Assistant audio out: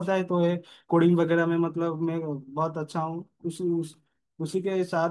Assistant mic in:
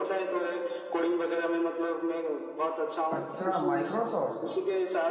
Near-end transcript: अच्छा माइक्रोसॉफ्ट

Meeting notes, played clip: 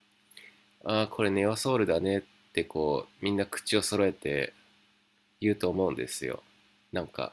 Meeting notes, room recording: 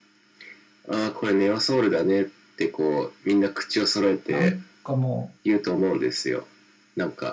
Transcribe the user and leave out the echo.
なんかもう、

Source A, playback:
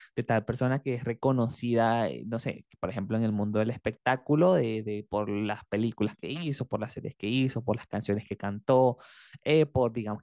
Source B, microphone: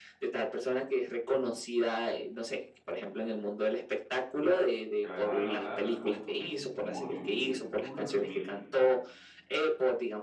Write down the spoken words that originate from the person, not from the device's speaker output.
que la dejaran hablar y contó su testimonio, imagínate, full resumido.

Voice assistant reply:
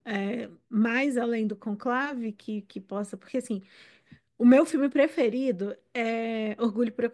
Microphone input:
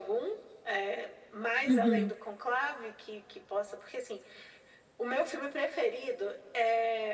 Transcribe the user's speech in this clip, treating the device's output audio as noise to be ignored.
uhum,

